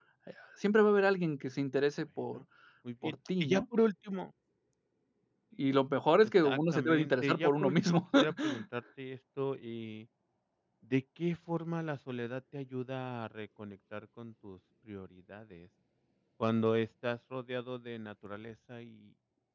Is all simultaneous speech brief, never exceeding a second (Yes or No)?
No